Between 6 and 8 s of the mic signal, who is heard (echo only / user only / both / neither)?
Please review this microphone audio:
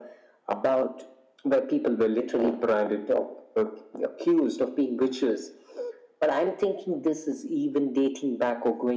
echo only